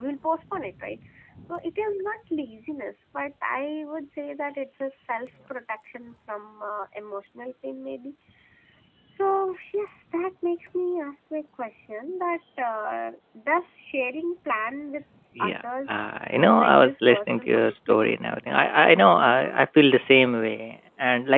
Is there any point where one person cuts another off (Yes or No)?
Yes